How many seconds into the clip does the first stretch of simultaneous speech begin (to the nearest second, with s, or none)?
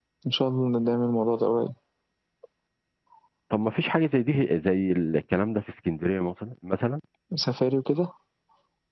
none